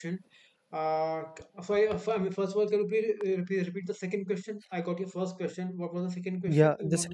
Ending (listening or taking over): taking over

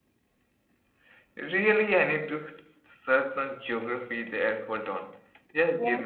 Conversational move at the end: taking over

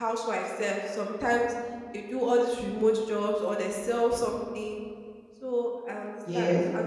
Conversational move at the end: listening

